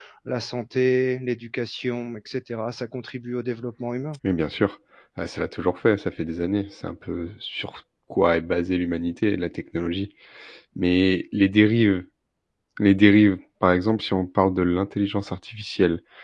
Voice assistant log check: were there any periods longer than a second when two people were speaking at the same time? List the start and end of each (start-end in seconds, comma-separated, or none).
none